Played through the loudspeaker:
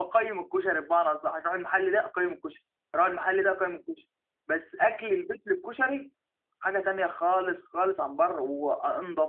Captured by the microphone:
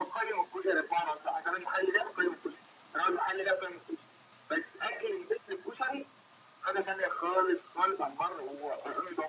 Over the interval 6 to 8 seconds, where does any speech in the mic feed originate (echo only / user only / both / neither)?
echo only